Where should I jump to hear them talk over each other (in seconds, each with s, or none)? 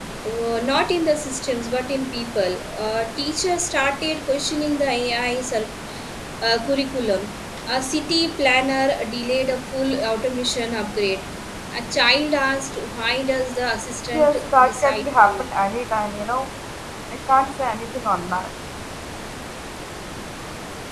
14.1 s